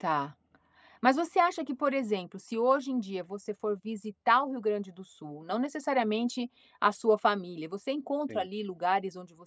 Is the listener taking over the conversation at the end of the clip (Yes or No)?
No